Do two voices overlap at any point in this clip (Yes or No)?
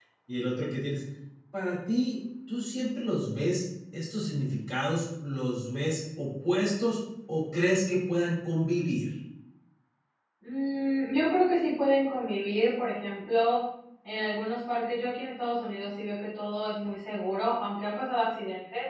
No